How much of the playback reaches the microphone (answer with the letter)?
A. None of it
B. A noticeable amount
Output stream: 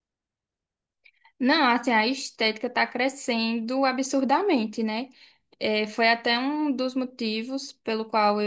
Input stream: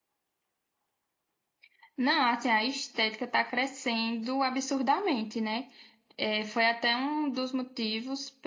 B